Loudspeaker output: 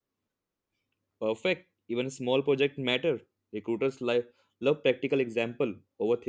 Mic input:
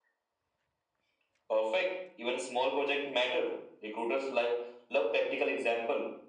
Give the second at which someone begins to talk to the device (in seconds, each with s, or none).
none